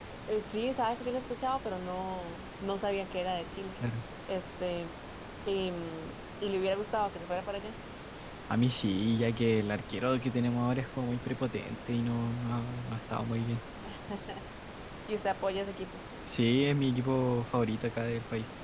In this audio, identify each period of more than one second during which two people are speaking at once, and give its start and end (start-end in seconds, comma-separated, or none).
none